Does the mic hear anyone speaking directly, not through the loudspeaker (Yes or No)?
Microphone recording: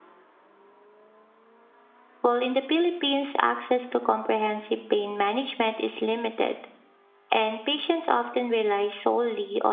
Yes